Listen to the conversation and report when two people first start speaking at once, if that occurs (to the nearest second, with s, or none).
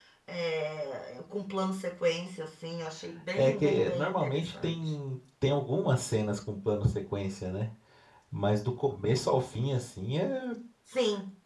3 s